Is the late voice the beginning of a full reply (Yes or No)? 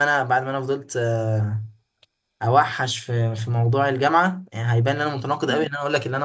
No